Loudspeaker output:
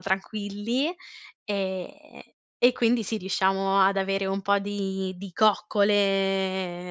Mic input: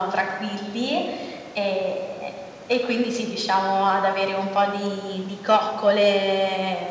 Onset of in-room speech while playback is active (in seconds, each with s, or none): none